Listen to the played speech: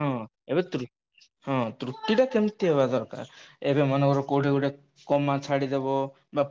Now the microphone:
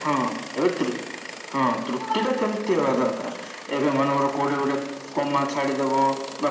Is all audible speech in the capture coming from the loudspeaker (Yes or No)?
Yes